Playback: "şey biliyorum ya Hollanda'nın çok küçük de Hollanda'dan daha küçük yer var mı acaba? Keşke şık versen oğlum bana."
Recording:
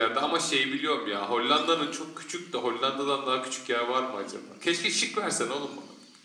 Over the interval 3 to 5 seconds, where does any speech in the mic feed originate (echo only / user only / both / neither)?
echo only